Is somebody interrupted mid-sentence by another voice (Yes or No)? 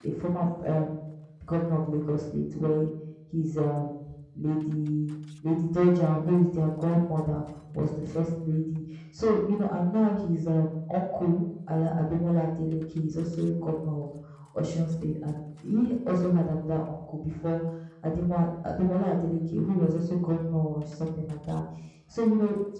No